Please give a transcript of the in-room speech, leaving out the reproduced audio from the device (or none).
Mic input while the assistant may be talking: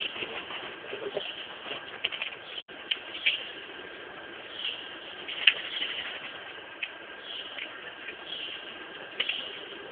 none